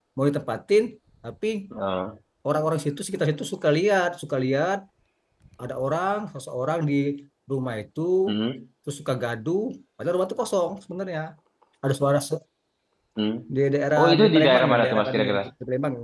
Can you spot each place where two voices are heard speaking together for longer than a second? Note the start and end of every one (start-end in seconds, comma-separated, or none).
14.0-15.4